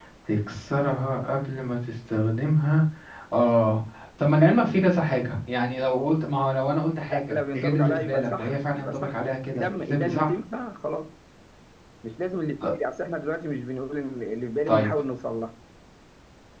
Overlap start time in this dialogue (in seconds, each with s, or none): 7.1 s